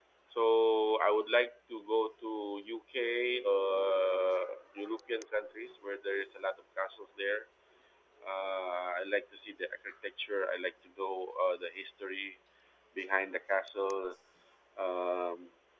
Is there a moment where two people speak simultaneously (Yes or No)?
No